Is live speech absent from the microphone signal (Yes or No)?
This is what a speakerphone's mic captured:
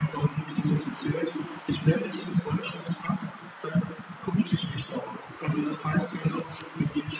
Yes